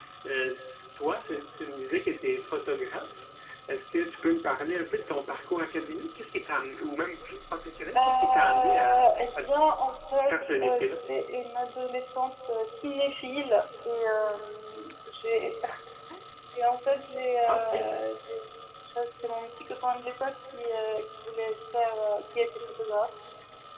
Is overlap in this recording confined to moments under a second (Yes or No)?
No